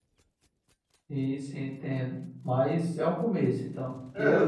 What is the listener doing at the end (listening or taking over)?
taking over